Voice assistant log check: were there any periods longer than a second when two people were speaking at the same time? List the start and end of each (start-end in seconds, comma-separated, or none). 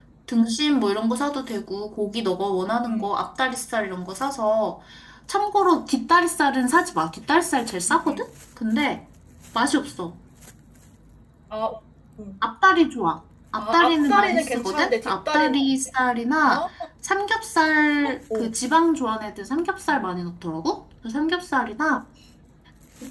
13.6-15.5